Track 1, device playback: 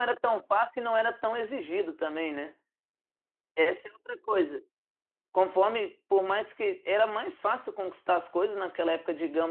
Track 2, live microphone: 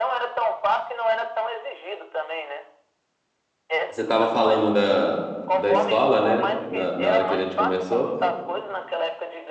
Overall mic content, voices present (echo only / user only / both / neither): both